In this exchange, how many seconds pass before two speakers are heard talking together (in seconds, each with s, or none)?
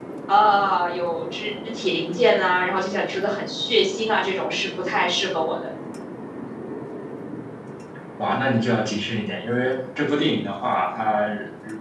none